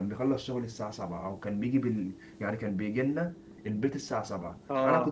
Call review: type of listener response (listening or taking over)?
listening